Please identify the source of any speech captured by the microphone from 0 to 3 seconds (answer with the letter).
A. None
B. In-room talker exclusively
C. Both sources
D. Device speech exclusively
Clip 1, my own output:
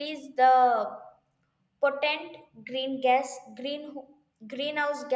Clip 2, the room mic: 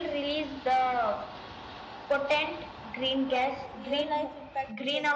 D